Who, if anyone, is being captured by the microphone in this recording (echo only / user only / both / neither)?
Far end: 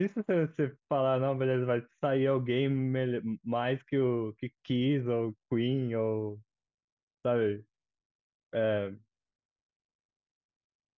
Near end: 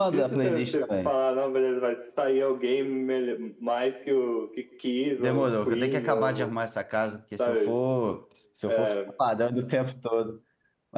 both